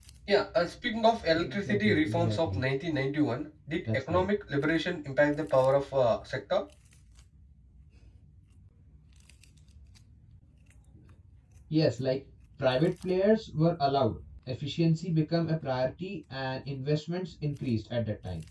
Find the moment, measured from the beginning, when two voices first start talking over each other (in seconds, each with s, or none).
1.4 s